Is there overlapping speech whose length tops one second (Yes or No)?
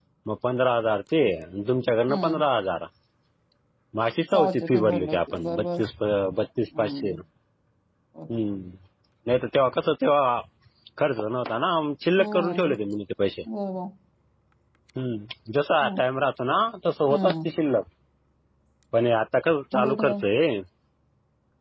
Yes